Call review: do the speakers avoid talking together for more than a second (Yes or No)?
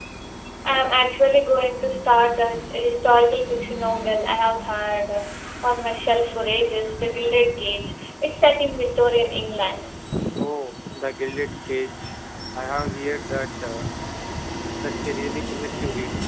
Yes